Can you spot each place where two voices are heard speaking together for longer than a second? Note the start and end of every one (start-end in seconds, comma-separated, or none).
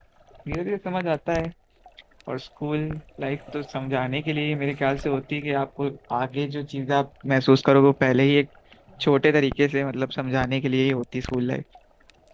none